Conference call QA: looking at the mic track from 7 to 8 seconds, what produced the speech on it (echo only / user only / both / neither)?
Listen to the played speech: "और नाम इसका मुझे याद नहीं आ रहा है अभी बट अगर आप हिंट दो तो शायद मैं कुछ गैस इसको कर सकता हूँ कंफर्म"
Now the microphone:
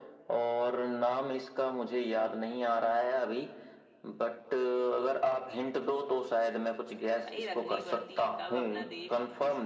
both